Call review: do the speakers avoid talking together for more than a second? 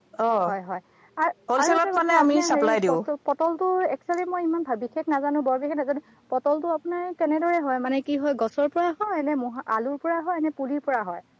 No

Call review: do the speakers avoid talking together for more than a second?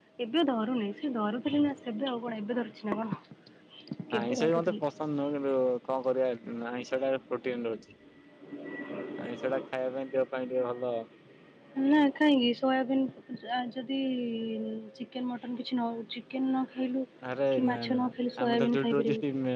No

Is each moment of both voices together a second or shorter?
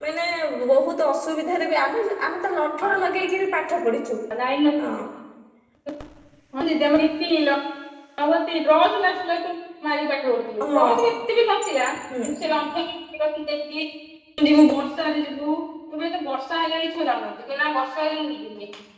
Yes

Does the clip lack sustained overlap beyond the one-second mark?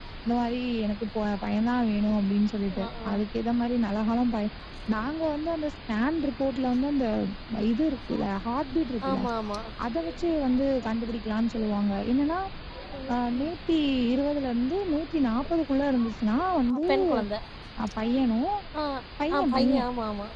Yes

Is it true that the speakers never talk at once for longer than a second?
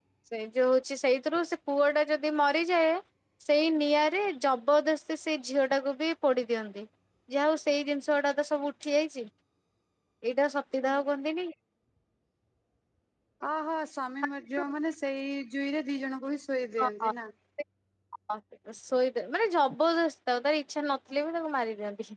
Yes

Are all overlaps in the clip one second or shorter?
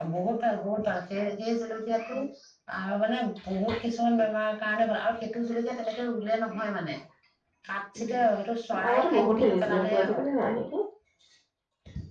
No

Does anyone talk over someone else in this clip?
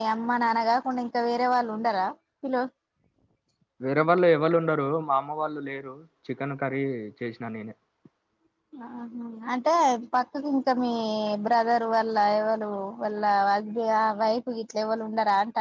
No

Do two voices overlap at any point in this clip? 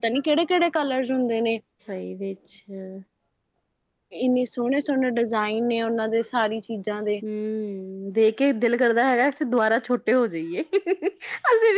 No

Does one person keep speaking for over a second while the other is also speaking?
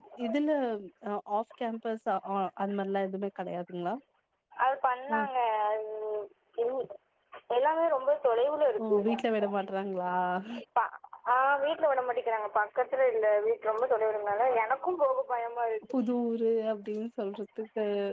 No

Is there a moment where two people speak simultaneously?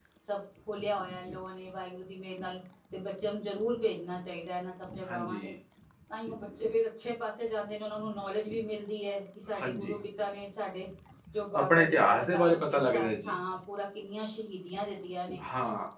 Yes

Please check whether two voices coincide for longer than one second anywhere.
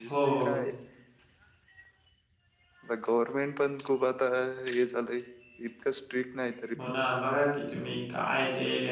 No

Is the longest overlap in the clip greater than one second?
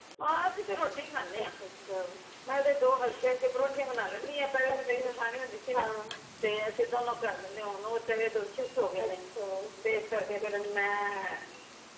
No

